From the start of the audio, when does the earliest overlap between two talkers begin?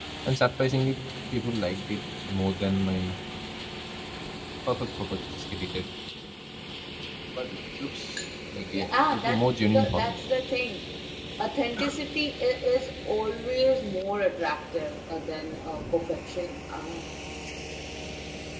8.7 s

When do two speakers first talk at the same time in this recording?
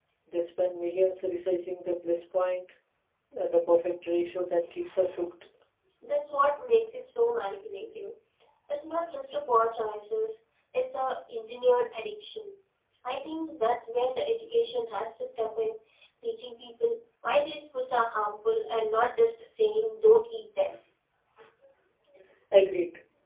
none

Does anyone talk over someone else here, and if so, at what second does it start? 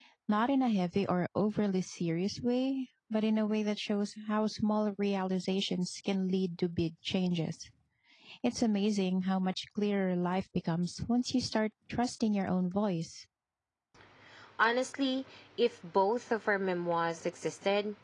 none

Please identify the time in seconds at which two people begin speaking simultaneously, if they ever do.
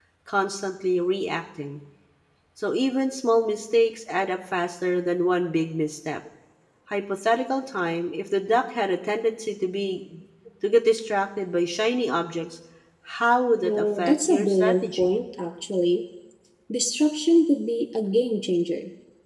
13.6 s

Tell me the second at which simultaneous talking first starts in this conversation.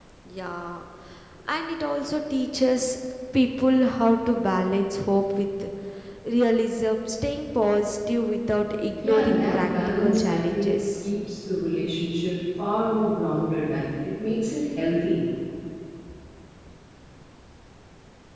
9.0 s

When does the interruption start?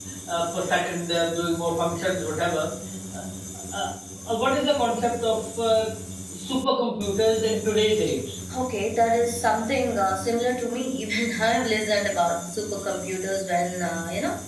none

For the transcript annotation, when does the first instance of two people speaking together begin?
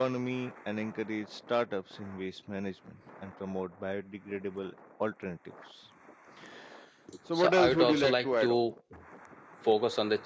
7.3 s

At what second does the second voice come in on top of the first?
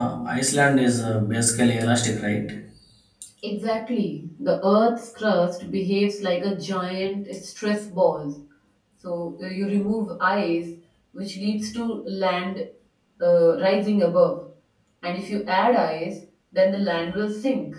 none

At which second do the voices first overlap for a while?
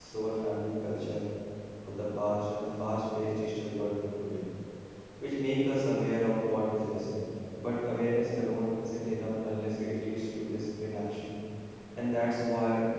none

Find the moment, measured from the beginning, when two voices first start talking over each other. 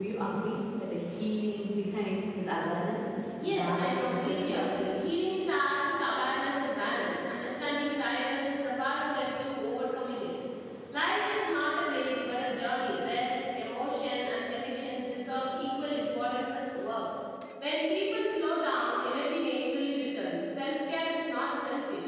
3.4 s

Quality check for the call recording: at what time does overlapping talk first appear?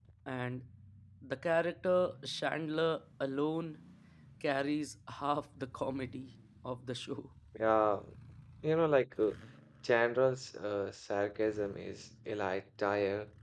none

